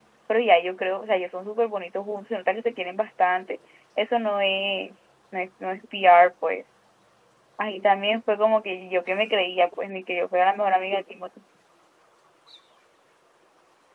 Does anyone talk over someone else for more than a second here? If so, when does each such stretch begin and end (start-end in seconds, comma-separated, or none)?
none